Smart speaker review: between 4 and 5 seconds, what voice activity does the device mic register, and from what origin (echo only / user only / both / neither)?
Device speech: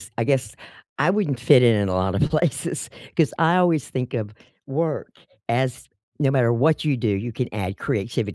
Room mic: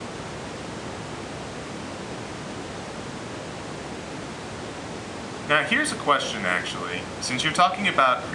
neither